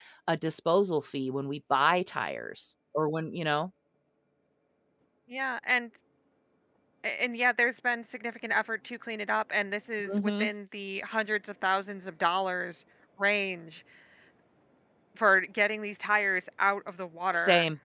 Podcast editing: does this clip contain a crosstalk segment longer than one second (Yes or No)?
No